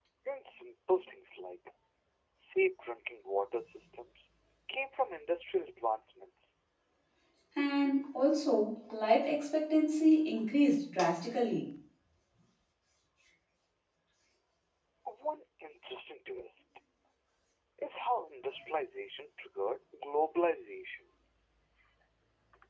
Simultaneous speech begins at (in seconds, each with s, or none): none